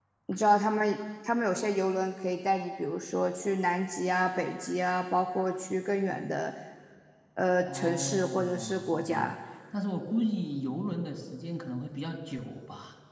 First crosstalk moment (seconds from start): 7.7 s

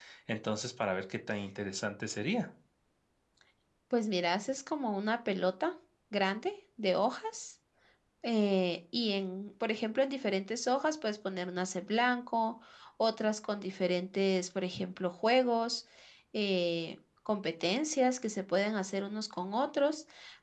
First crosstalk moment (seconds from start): none

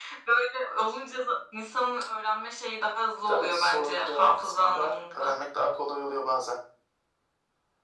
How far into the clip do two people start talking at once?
3.3 s

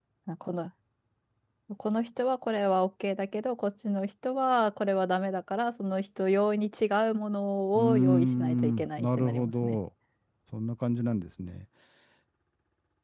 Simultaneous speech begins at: 7.8 s

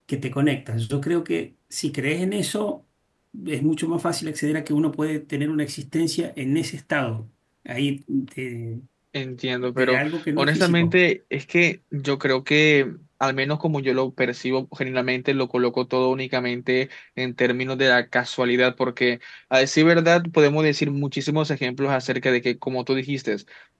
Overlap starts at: 9.8 s

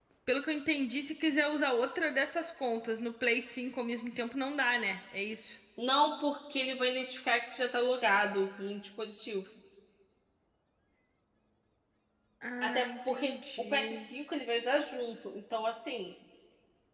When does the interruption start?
12.6 s

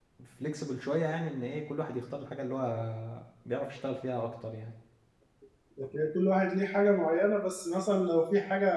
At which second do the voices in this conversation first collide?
none

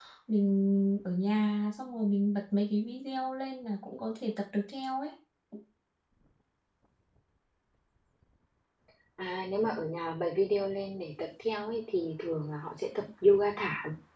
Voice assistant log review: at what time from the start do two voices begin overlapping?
none

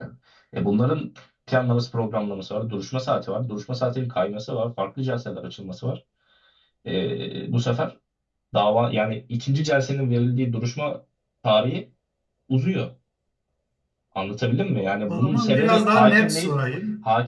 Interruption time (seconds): 14.8 s

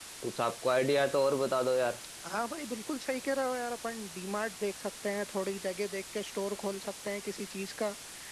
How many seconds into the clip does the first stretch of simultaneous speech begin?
none

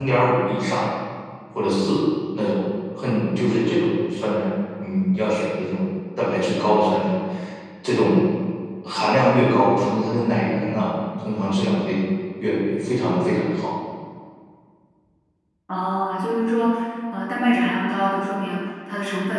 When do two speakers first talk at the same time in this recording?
none

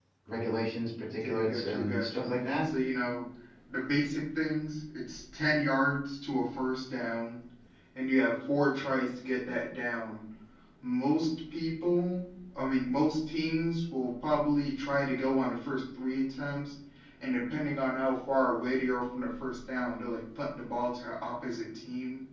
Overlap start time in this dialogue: 1.2 s

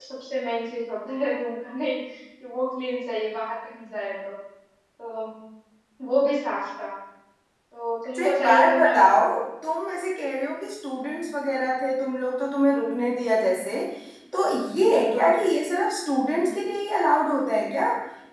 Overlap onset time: 8.2 s

